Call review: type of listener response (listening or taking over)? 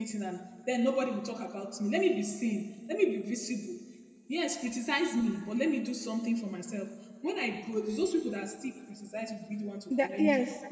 taking over